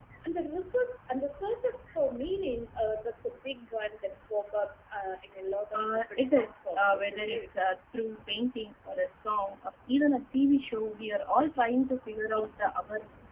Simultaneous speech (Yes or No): Yes